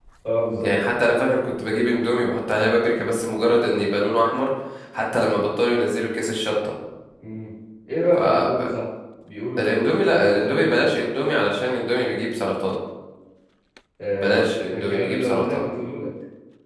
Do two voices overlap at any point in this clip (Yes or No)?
Yes